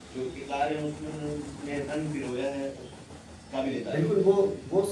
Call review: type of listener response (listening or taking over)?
taking over